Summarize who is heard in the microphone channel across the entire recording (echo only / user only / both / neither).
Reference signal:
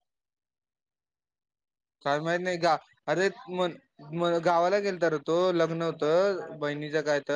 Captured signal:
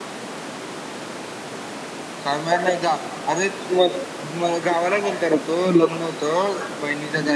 echo only